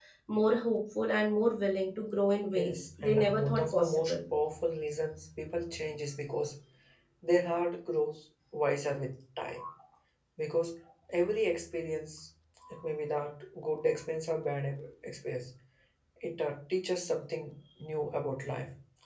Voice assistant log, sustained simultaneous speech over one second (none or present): present